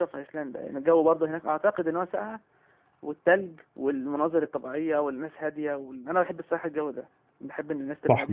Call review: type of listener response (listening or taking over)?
taking over